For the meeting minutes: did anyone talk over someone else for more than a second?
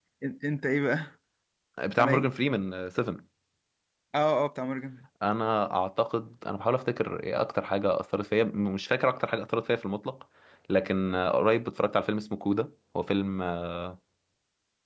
No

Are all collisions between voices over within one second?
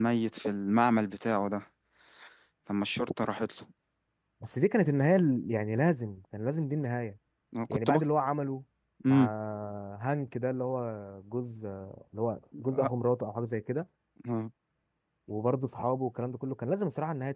Yes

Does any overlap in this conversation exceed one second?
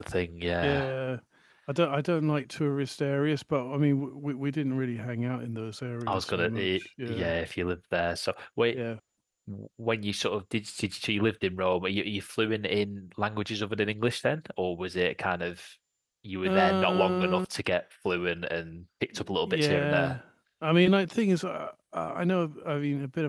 Yes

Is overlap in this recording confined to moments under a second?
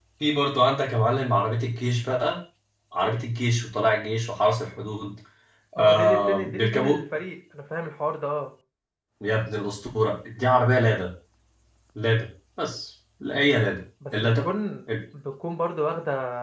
No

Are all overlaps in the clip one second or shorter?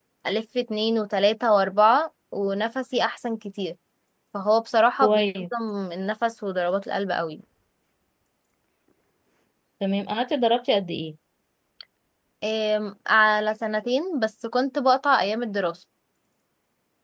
Yes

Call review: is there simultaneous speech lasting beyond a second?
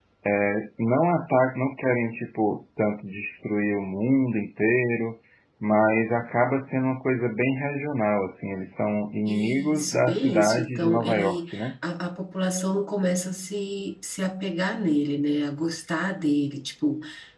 Yes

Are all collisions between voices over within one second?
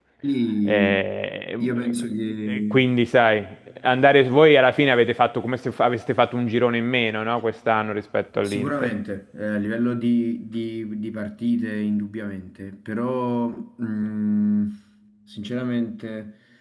Yes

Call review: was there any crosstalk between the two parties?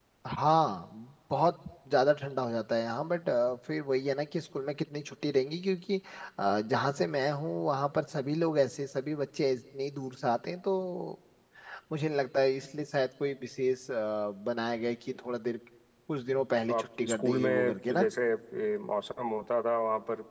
Yes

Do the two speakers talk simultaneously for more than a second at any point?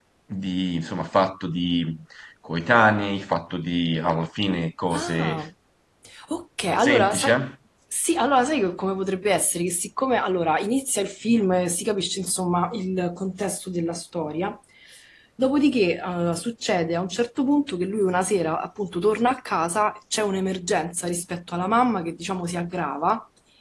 No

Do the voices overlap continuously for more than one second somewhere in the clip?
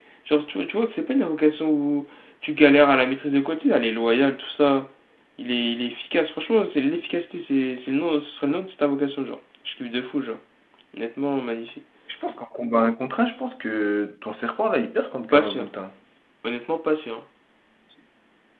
No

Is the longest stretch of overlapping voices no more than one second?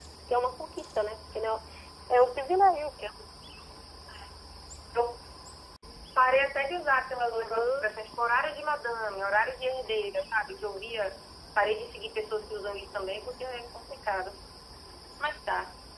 Yes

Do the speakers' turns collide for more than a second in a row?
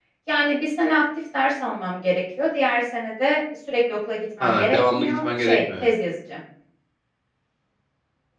Yes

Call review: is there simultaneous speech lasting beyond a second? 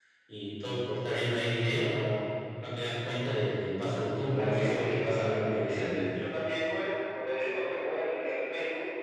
Yes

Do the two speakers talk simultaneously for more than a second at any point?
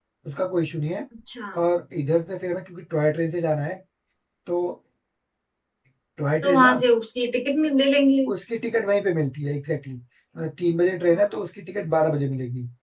No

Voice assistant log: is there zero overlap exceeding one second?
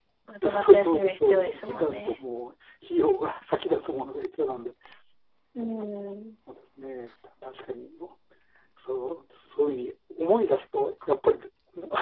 No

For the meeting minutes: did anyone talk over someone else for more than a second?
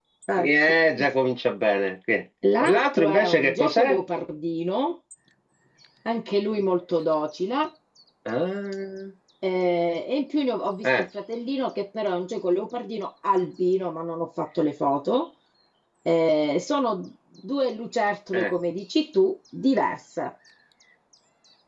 Yes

